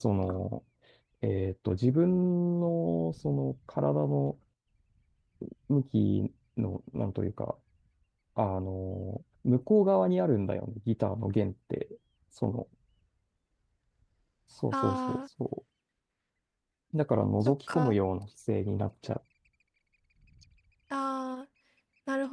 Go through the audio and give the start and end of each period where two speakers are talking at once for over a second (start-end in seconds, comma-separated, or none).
none